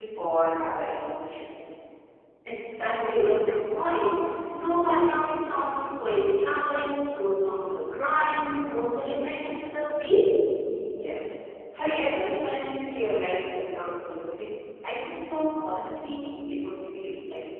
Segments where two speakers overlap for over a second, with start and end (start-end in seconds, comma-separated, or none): none